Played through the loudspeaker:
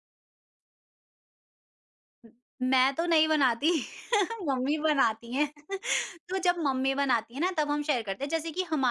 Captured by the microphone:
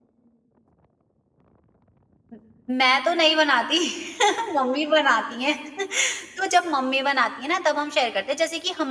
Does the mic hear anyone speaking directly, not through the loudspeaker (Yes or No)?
No